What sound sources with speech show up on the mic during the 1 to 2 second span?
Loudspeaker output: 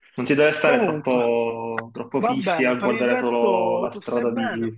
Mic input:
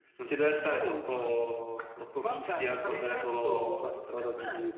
echo only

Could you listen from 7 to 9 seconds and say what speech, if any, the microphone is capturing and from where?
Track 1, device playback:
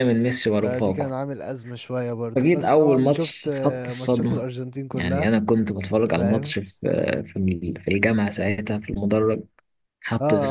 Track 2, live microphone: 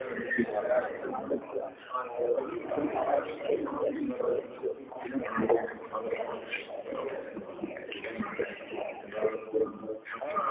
echo only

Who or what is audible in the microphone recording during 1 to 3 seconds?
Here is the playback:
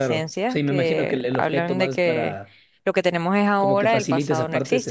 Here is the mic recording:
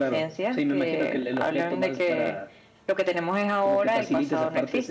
echo only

